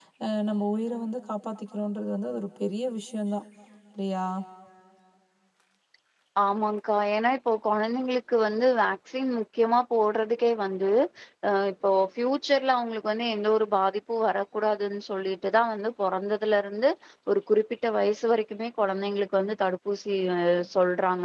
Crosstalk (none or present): none